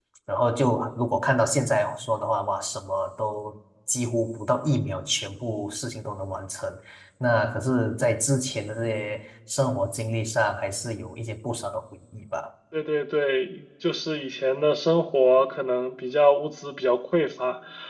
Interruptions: none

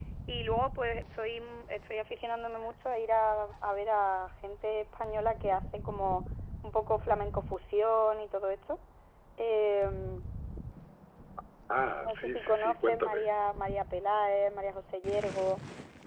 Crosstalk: present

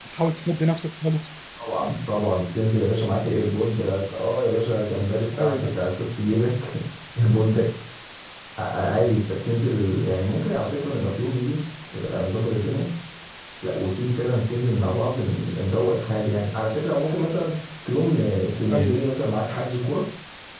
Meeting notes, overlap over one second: none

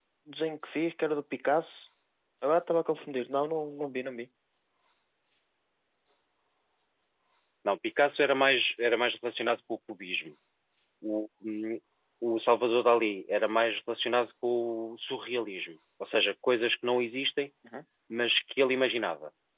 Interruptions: none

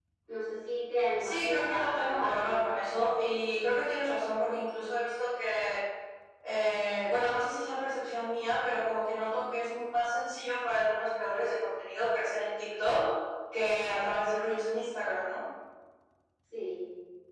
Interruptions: present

